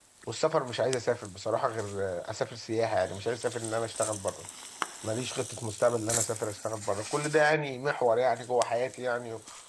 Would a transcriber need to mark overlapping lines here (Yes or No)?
No